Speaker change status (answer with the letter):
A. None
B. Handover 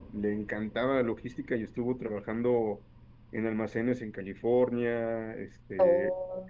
A